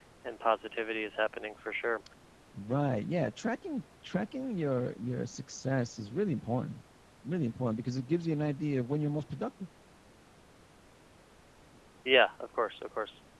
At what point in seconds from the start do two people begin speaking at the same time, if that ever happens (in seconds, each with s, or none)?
none